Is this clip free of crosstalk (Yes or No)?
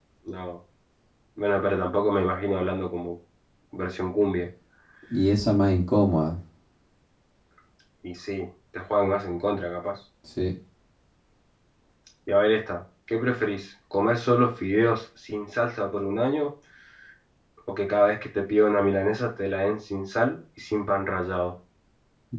Yes